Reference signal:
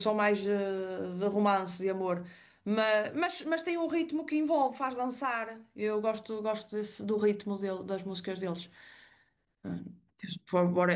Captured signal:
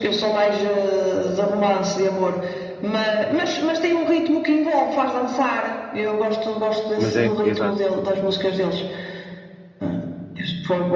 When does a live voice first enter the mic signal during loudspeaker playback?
7.0 s

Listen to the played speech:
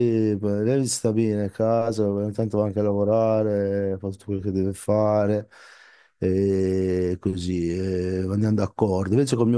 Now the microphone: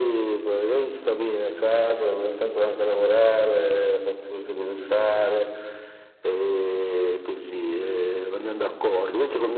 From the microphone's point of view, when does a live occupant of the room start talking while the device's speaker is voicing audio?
none

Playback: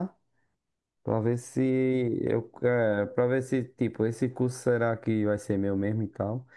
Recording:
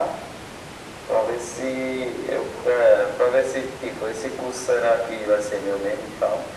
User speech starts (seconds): none

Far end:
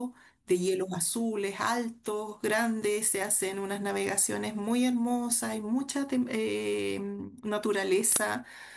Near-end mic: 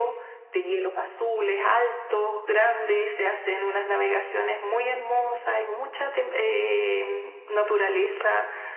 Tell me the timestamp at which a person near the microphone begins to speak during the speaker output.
none

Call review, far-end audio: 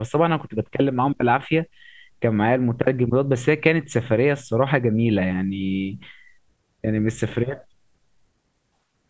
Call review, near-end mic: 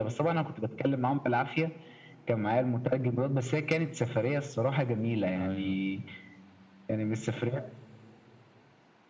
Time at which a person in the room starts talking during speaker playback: 5.4 s

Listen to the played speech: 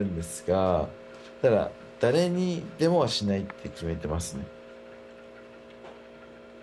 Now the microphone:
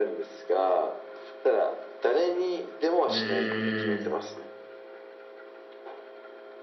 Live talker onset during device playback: 3.0 s

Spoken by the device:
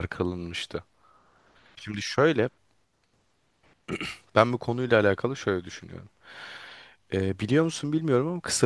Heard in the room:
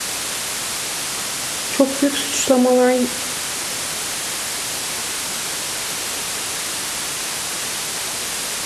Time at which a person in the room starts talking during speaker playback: 1.7 s

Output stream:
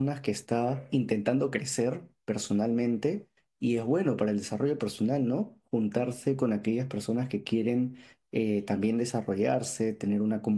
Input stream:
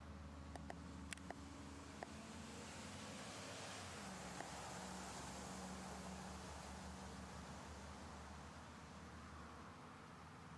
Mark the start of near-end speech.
none

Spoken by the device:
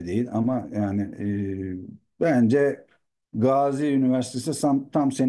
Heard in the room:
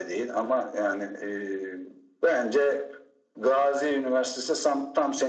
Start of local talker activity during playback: none

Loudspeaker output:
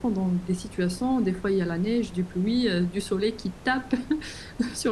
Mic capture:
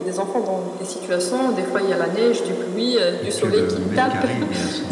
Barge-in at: 3.2 s

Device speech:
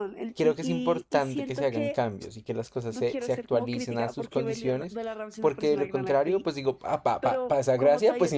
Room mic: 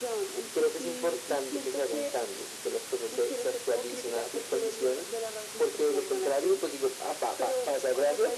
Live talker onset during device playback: none

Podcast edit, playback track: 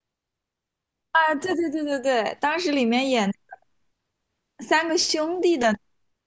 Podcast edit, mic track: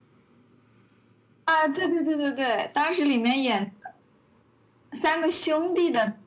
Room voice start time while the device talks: none

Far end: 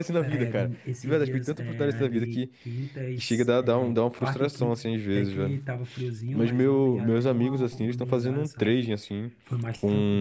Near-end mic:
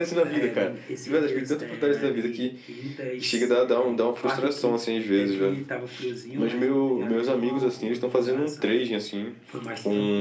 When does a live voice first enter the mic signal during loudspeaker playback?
none

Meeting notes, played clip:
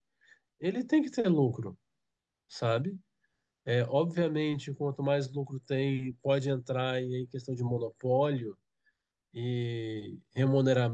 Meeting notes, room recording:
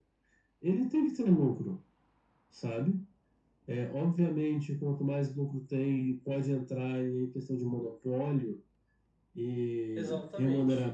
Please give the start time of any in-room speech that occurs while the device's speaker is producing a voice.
9.9 s

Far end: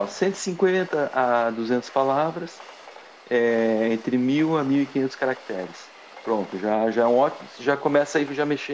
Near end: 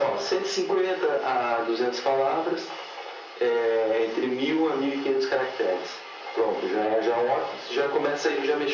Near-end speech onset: none

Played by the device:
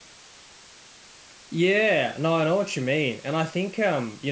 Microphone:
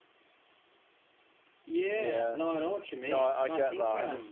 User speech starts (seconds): 1.9 s

